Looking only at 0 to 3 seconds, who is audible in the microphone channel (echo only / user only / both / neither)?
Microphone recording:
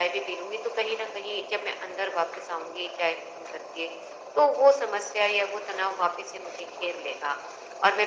echo only